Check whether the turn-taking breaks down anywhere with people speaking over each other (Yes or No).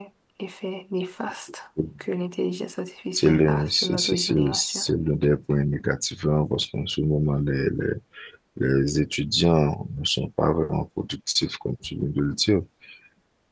Yes